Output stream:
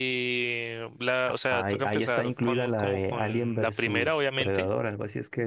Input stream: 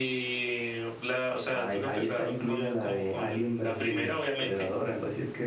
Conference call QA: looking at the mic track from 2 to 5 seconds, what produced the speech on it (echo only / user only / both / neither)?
echo only